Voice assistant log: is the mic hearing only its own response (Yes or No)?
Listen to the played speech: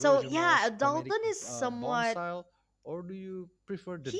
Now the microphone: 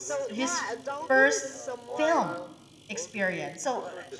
No